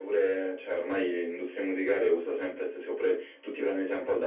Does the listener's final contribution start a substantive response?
No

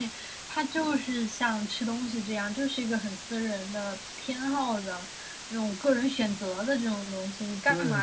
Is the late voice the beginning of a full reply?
No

